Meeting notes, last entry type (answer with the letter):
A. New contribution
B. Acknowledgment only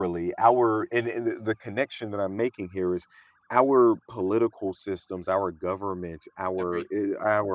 B